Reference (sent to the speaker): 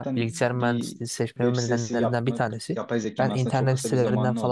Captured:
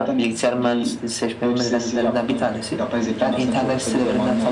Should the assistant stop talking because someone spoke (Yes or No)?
No